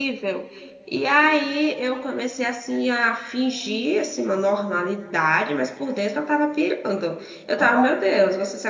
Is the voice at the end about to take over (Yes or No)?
No